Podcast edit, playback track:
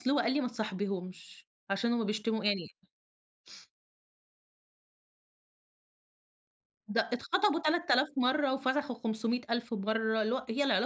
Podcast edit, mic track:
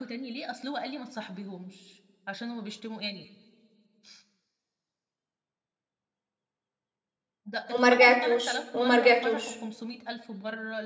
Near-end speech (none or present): present